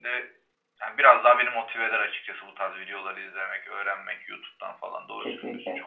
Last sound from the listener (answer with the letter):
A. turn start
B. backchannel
A